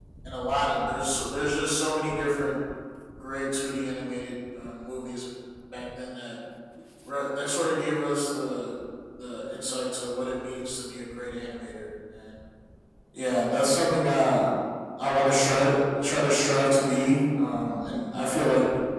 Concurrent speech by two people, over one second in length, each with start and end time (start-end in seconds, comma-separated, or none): none